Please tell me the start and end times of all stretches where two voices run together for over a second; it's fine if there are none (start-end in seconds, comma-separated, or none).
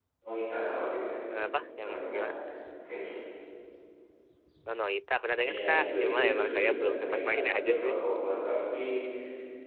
5.4-8.0